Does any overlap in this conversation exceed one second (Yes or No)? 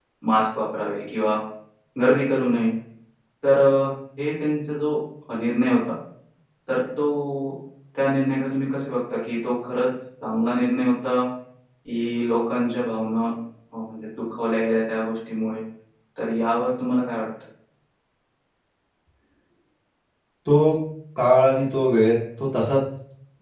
No